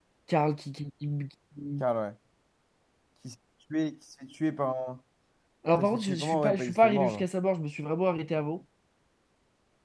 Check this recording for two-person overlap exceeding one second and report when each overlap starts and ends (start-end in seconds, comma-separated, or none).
5.8-7.2